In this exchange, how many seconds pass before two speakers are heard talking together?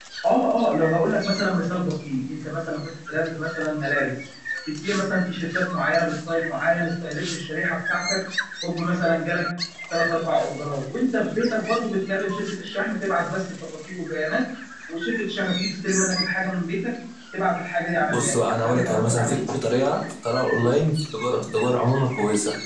17.9 s

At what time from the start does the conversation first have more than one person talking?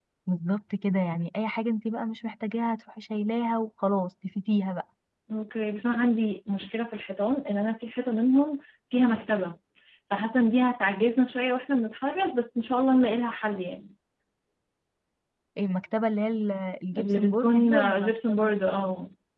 16.9 s

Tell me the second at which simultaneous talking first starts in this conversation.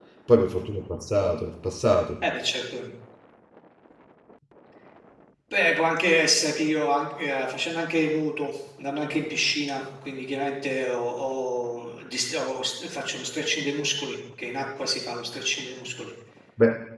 none

